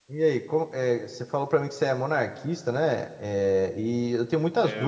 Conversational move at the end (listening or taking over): listening